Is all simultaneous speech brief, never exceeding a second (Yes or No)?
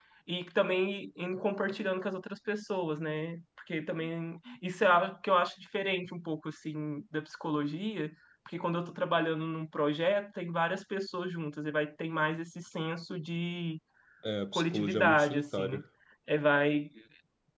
No